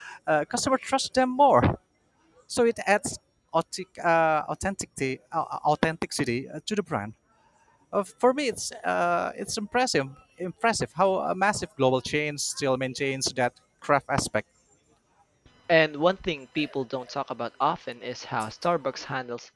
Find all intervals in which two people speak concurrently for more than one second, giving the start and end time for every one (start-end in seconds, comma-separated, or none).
none